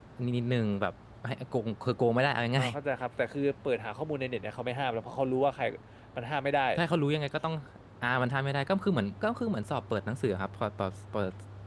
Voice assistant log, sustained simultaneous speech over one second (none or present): none